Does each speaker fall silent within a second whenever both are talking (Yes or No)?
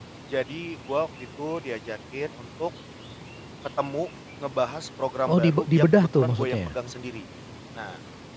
No